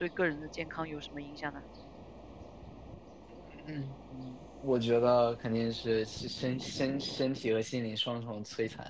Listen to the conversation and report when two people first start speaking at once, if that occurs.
none

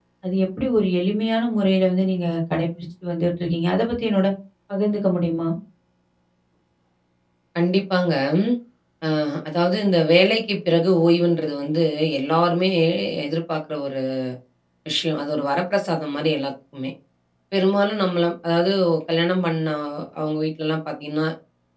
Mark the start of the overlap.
none

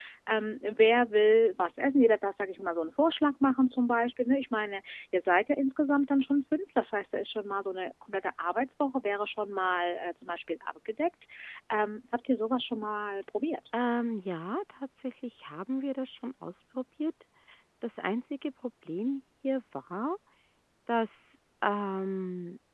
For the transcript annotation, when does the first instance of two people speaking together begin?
none

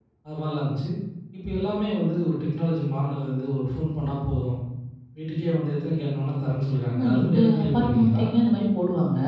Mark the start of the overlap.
6.9 s

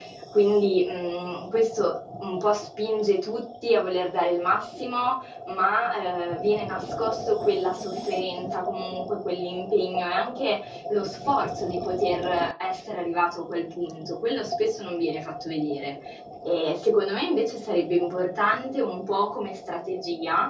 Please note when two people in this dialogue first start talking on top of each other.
none

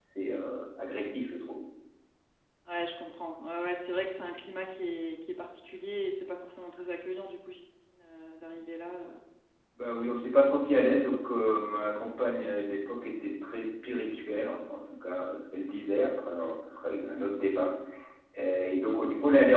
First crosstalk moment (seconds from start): none

